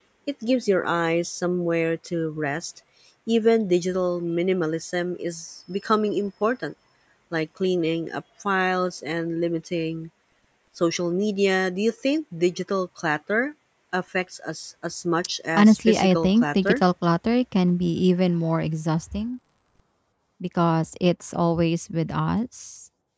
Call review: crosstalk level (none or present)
present